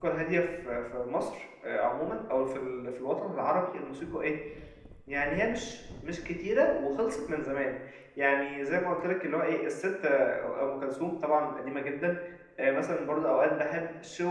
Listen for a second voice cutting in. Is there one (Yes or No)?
No